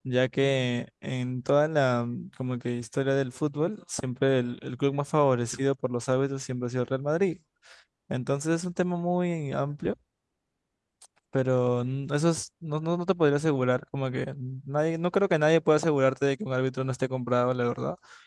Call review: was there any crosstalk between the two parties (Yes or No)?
No